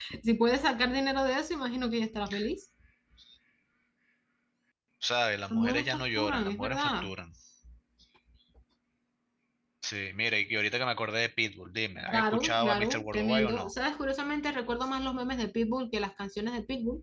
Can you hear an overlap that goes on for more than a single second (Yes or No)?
Yes